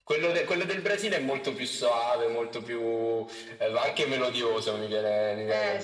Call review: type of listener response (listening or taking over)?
taking over